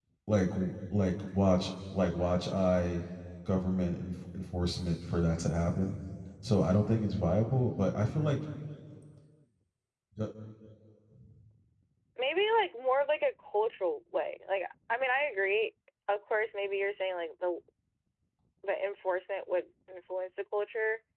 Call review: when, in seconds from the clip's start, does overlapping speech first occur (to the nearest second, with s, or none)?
none